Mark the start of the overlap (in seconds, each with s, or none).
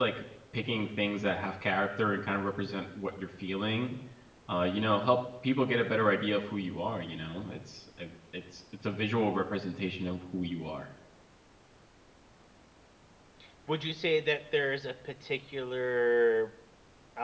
none